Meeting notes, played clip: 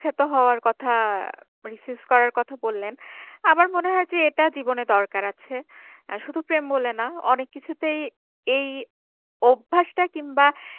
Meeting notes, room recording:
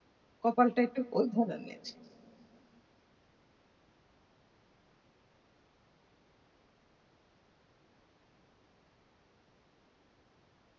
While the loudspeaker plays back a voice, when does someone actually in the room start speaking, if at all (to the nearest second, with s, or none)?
0 s